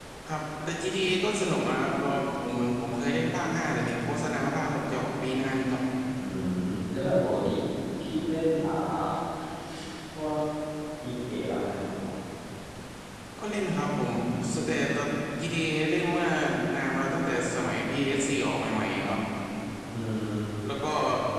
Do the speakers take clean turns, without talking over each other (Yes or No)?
Yes